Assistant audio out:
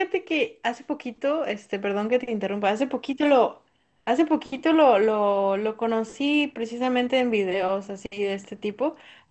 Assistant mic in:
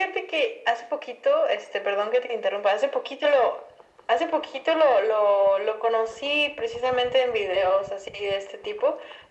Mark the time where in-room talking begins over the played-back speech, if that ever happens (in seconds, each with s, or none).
none